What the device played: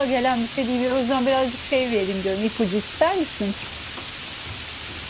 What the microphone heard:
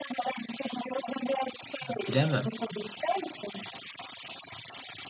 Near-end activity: present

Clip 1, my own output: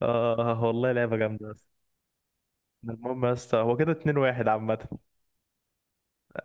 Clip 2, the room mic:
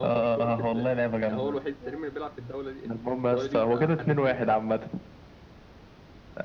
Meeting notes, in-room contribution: present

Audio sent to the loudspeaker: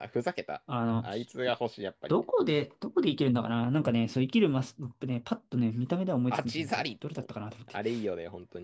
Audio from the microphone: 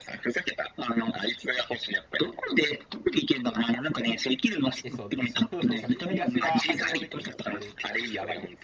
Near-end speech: present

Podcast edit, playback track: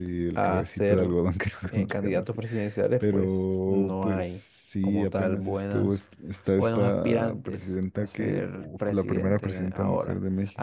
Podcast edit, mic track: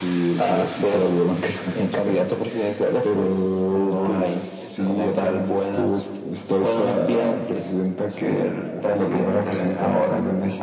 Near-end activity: present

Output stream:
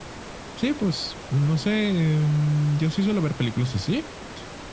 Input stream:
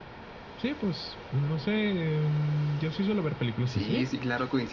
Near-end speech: present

